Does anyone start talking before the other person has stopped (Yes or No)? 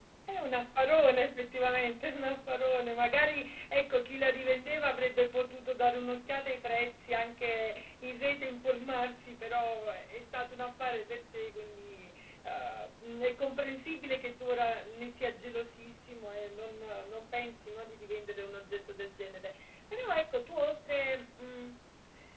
No